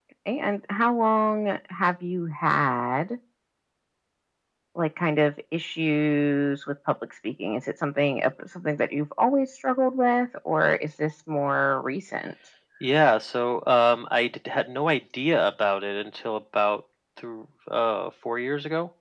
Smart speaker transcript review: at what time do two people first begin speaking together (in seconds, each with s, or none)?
none